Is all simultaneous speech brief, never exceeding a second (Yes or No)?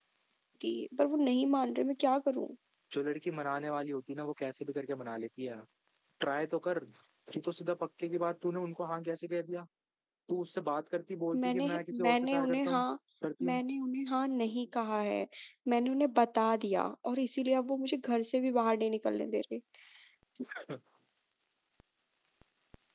No